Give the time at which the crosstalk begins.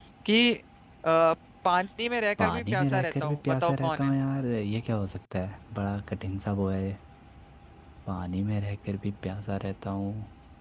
2.4 s

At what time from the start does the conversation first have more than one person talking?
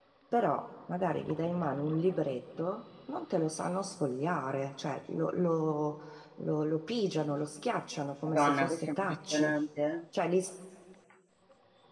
8.3 s

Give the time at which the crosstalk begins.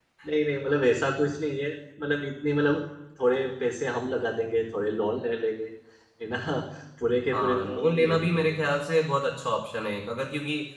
7.3 s

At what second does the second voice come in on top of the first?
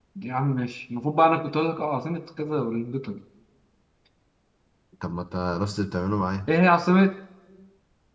none

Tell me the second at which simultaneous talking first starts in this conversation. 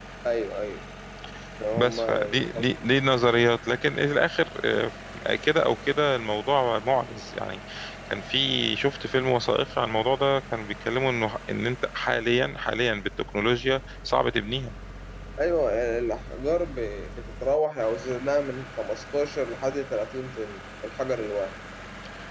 1.7 s

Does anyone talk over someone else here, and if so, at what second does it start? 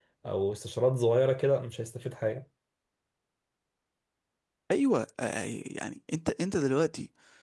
none

